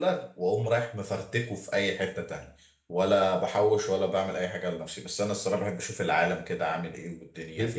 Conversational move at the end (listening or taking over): taking over